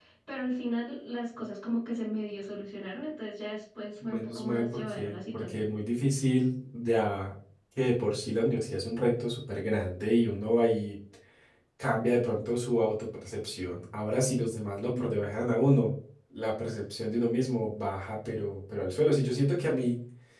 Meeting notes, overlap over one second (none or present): present